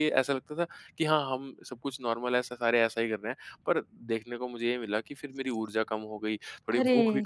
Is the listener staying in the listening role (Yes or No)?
Yes